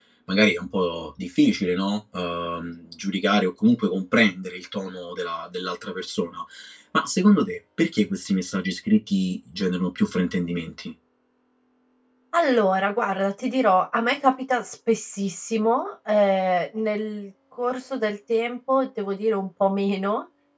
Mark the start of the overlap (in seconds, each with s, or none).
none